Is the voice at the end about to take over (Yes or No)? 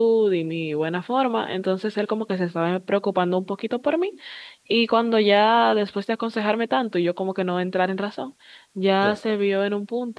No